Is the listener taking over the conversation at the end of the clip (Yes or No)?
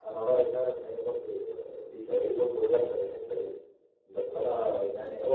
No